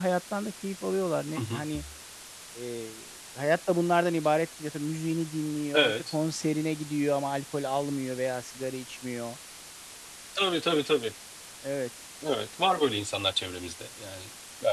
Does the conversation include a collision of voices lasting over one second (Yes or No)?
No